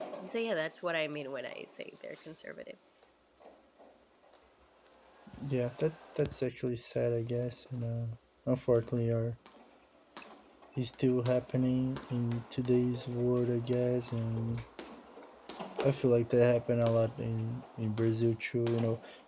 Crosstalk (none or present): none